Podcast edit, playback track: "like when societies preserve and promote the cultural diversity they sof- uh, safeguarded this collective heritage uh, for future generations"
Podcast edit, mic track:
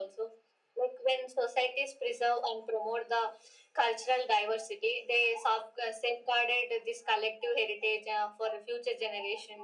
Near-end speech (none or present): none